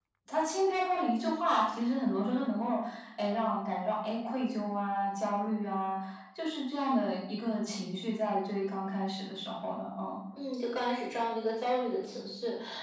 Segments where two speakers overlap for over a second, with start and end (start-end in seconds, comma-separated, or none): none